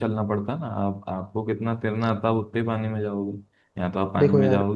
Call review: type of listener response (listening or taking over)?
taking over